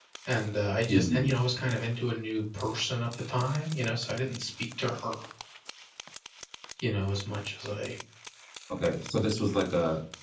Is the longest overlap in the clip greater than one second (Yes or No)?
No